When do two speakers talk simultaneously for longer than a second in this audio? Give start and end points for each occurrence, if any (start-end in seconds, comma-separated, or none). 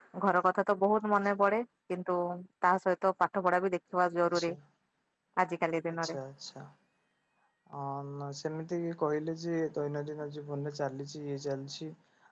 none